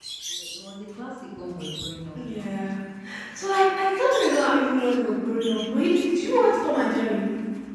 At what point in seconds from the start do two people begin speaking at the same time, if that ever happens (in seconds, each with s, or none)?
none